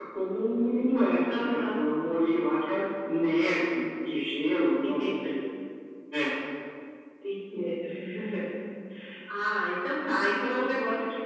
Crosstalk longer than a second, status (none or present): none